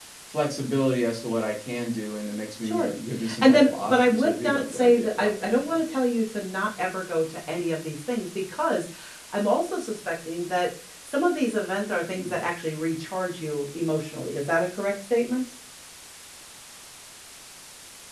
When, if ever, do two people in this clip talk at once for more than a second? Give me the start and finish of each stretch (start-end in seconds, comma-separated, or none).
3.4-5.8